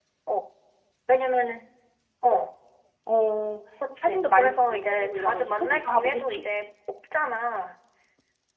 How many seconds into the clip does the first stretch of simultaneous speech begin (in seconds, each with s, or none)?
3.8 s